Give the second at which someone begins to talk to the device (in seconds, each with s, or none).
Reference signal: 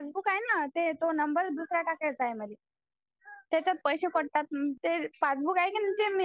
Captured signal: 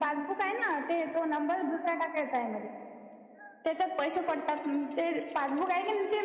none